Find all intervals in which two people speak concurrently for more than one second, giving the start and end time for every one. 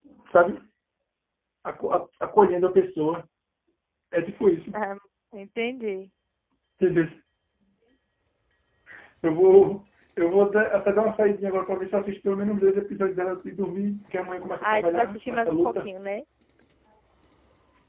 14.6-15.9

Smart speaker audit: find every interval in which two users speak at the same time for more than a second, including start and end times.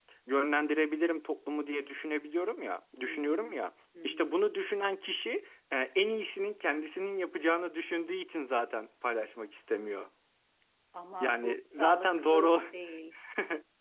11.2-12.6

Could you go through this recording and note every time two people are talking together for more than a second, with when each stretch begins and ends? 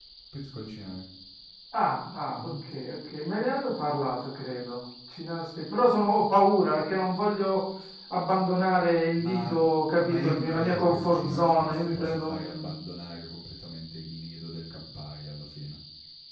10.0-12.7

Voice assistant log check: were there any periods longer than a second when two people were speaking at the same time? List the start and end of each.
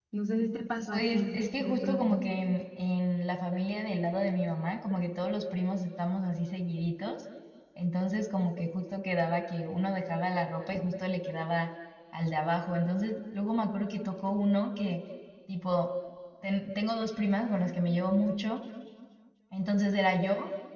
0.9-2.2

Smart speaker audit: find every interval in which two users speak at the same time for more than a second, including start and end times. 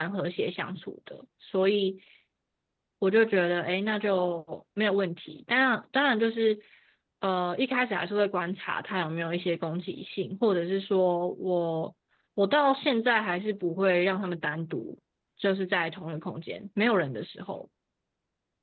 none

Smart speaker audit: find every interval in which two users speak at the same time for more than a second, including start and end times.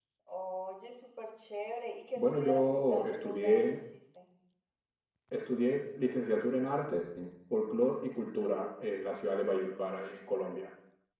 2.1-3.6

